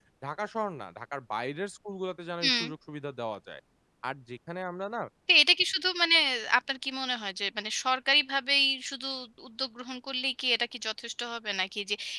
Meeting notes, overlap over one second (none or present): none